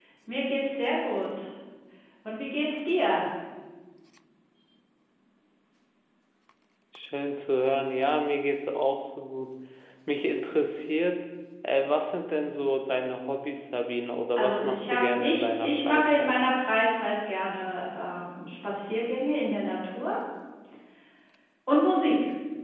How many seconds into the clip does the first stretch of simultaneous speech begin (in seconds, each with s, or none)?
14.4 s